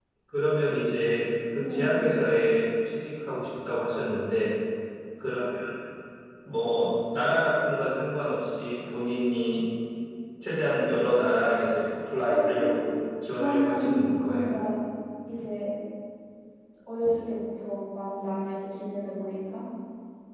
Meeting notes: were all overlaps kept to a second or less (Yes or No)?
No